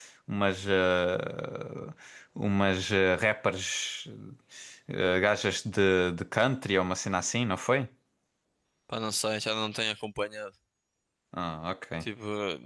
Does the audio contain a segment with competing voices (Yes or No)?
No